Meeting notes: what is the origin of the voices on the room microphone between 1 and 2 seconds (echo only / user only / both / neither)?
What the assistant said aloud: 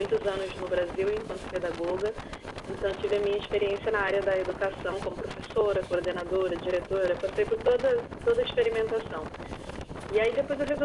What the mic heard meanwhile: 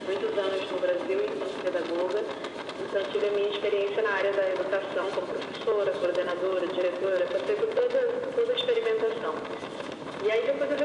echo only